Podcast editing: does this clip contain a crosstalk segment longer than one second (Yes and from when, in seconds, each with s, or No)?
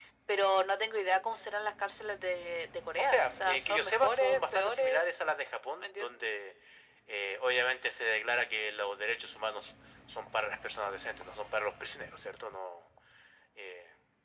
Yes, from 3.0 s